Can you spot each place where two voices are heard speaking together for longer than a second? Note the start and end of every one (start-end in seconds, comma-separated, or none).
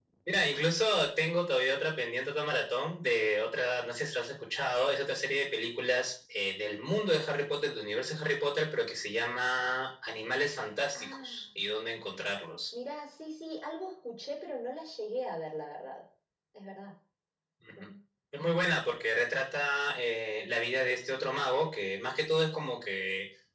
none